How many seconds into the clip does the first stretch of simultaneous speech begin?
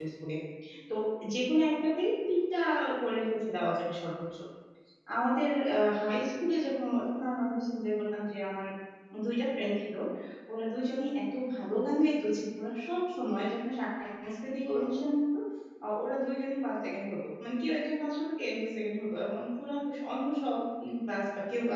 none

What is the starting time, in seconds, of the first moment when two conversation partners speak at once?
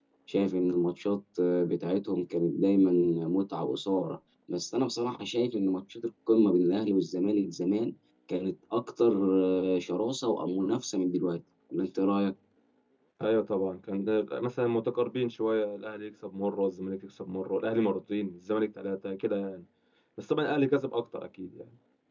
none

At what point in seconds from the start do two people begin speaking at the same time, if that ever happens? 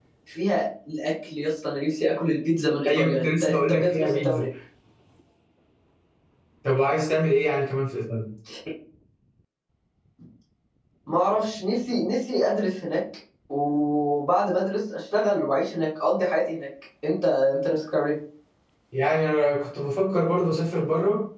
3 s

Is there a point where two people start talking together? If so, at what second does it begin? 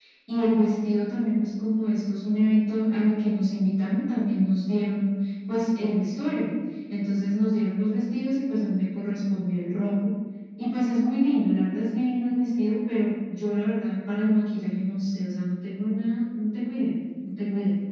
none

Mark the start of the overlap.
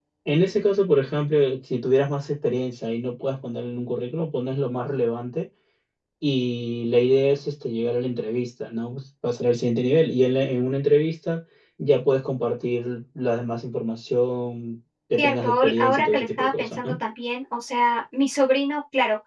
15 s

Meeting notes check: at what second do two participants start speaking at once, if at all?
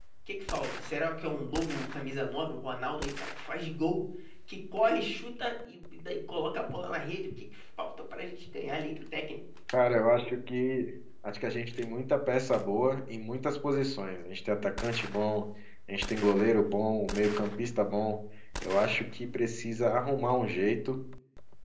none

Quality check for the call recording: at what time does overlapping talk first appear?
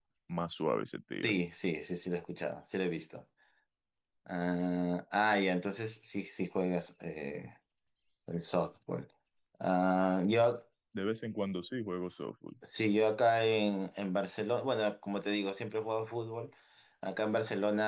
none

